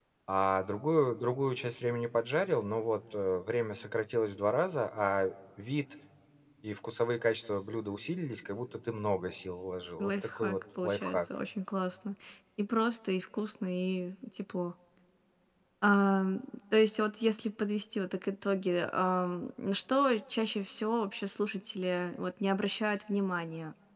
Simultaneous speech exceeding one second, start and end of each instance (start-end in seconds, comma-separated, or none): 10.0-11.2